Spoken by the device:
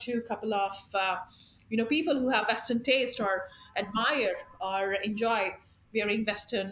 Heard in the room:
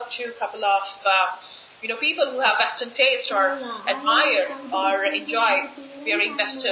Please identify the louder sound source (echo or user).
echo